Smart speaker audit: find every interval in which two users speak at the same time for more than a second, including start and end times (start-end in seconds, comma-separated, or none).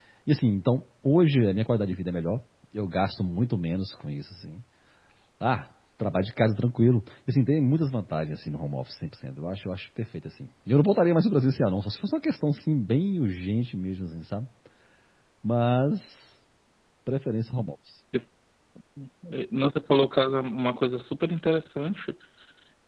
none